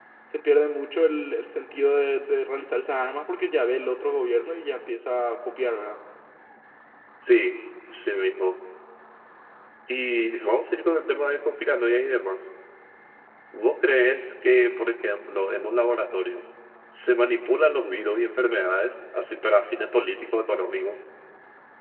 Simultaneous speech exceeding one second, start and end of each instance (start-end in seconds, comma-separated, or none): none